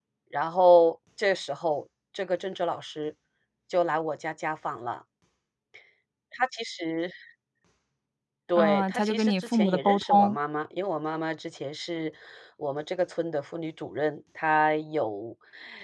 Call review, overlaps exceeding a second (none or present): present